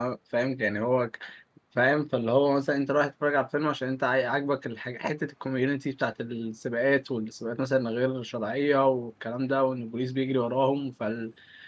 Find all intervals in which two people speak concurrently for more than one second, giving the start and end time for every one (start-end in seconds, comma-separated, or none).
none